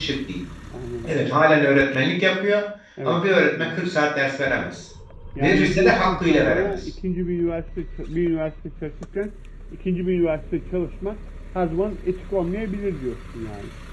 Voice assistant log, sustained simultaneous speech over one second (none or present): present